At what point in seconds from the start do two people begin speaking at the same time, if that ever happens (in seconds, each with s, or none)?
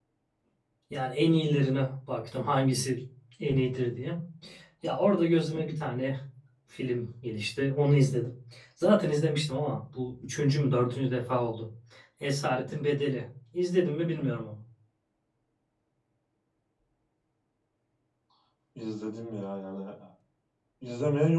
none